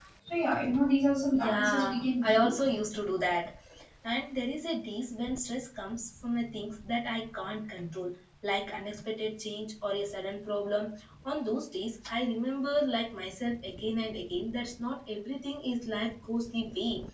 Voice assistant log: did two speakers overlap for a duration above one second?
Yes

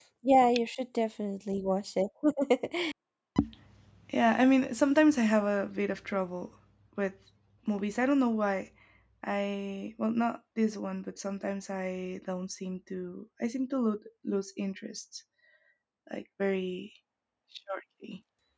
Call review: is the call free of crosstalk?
Yes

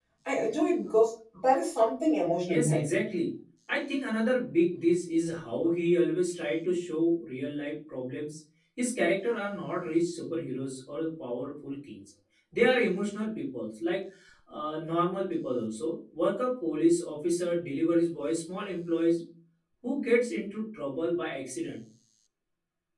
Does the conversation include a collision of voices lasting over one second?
No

